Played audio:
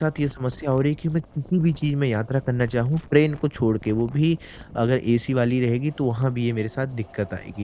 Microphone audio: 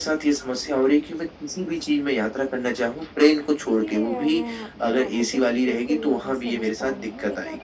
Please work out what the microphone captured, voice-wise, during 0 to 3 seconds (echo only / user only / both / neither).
echo only